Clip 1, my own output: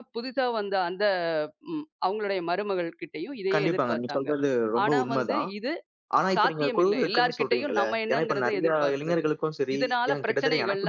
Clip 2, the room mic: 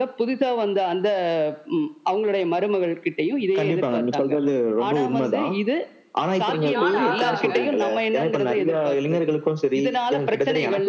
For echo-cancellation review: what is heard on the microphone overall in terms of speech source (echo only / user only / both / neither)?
both